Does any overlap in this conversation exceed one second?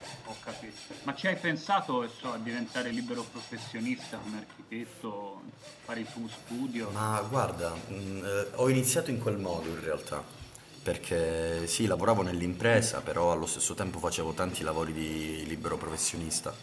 No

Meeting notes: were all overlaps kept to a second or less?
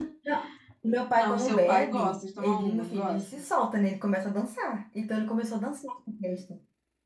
No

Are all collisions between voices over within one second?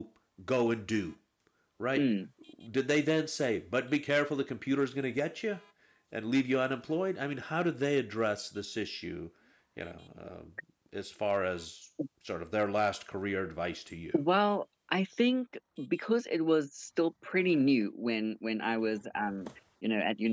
Yes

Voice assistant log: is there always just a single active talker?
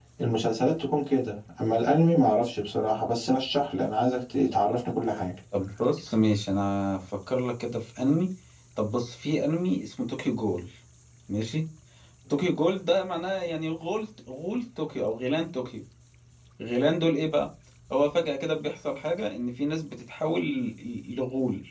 Yes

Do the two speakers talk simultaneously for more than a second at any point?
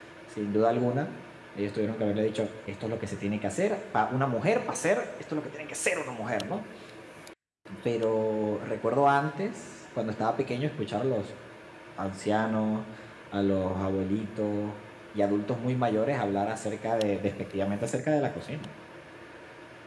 No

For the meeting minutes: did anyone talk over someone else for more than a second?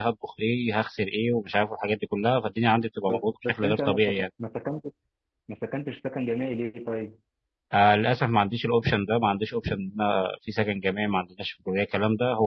Yes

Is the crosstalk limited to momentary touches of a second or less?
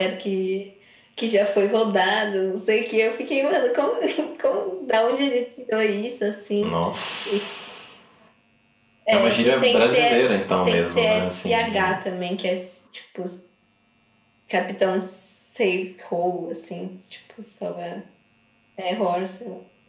No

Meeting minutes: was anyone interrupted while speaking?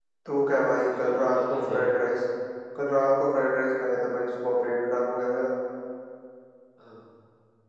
Yes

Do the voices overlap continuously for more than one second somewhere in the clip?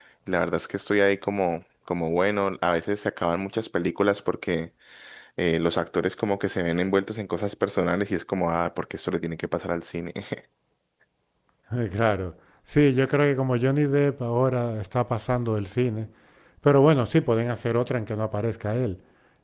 No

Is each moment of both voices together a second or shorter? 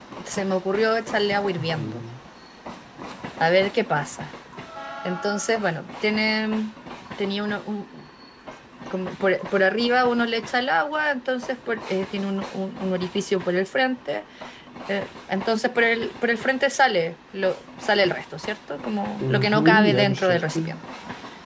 No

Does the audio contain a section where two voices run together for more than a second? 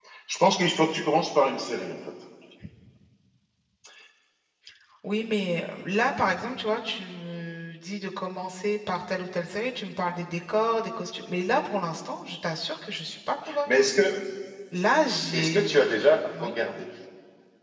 No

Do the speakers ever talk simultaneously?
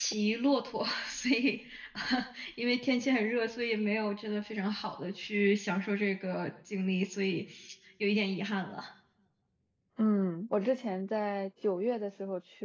No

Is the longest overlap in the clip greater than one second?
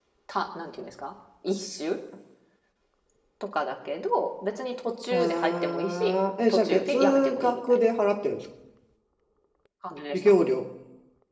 Yes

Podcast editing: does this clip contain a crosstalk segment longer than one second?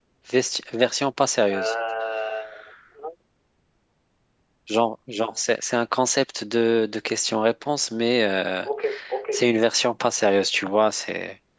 No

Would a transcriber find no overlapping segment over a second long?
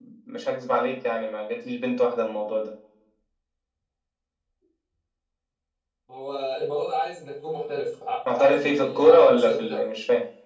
No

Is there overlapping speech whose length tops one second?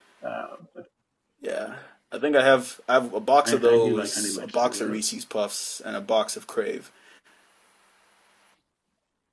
Yes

